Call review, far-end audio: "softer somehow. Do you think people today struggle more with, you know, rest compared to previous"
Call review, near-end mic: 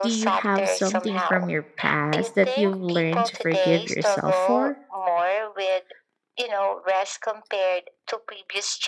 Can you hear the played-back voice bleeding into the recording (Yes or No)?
Yes